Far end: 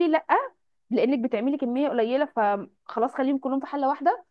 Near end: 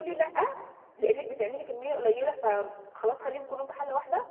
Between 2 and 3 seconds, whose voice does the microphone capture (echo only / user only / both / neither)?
echo only